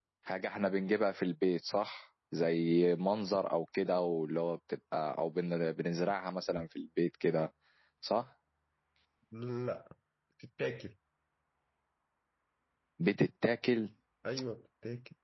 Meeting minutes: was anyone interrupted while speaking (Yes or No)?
No